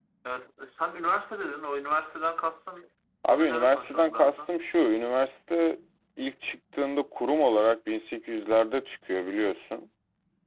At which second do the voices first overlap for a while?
3 s

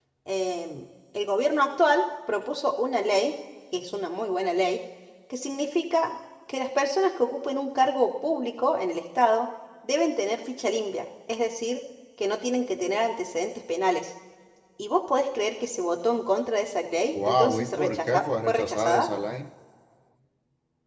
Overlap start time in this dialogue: 17 s

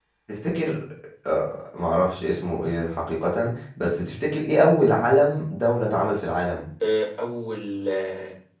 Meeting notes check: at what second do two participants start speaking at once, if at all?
none

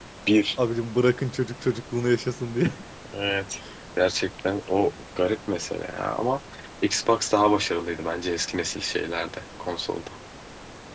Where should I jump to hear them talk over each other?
none

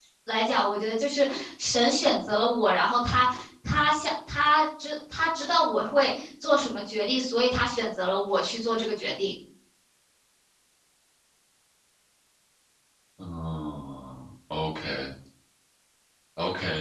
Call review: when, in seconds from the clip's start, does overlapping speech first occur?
none

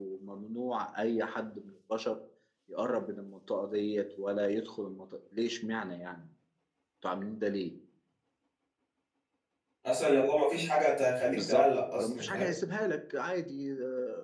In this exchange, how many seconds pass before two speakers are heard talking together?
11 s

